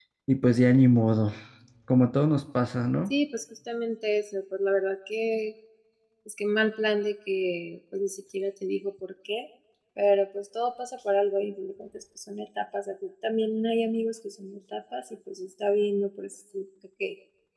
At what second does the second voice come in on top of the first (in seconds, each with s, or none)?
none